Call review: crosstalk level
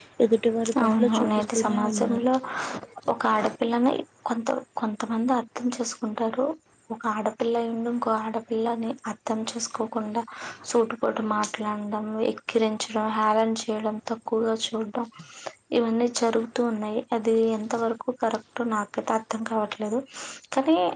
present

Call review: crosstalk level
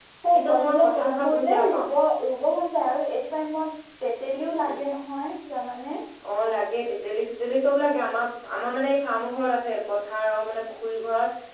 present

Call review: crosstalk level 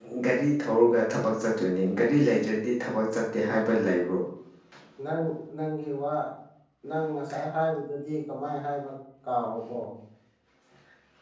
none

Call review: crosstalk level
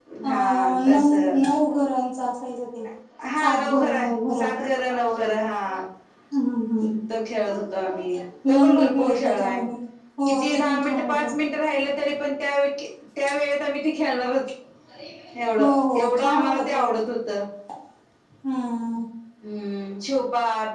present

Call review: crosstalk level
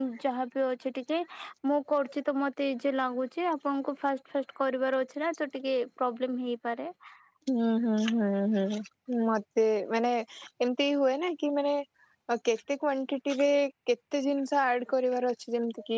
none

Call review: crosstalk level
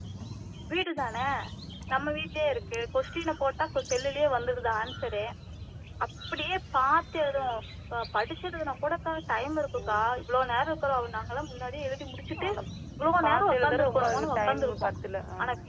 present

